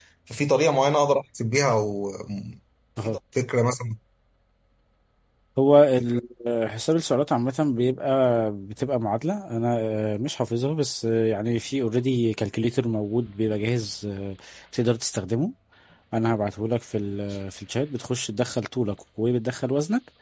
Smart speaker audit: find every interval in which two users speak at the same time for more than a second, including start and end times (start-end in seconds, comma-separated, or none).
none